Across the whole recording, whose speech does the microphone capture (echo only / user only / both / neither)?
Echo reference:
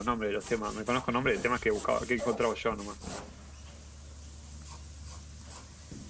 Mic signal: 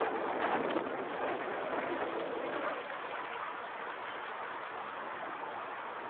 neither